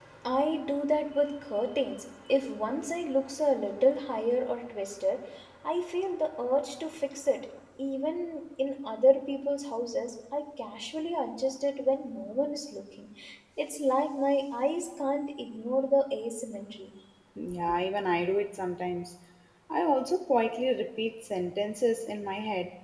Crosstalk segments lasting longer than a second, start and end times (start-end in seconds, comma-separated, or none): none